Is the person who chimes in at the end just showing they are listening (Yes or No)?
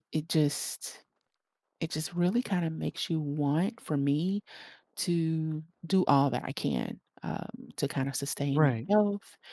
Yes